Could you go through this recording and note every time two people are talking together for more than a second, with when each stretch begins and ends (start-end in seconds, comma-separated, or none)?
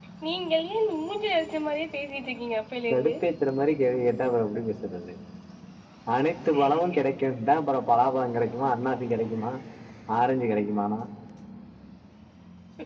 none